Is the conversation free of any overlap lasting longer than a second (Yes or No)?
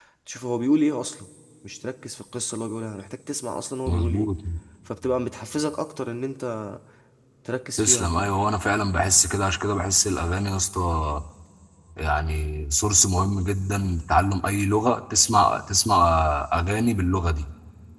Yes